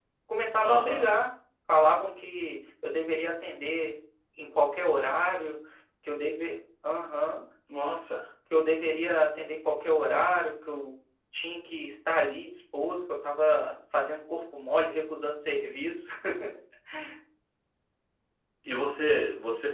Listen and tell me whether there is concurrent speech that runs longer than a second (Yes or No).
No